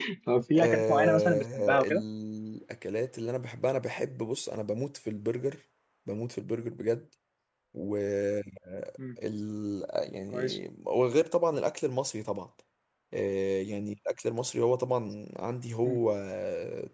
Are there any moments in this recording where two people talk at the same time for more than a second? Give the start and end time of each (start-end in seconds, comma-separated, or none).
0.6-2.0